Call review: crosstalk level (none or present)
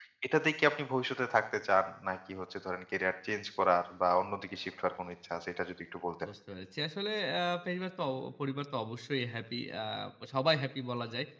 none